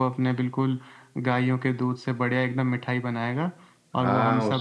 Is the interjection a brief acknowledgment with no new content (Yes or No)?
No